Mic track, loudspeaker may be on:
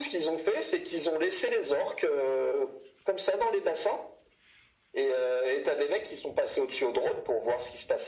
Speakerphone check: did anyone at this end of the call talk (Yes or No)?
No